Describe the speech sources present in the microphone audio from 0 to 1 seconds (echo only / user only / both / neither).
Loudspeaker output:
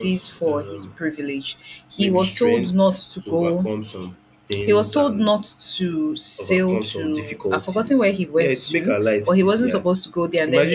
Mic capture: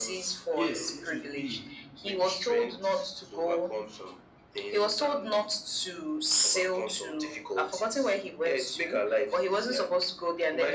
both